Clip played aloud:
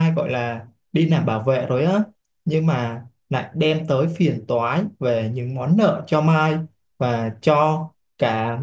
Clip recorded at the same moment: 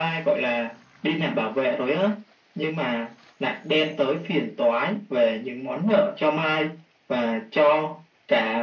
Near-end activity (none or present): none